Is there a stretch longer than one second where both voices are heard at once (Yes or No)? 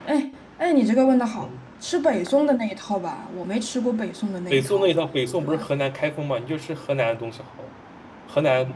No